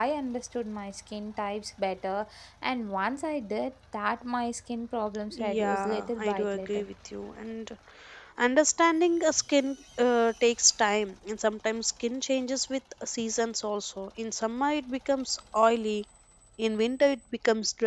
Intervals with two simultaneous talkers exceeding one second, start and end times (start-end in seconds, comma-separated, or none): 5.3-6.9